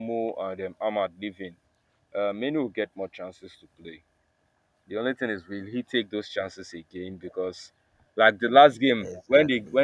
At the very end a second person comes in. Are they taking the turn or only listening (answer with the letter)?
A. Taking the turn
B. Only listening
B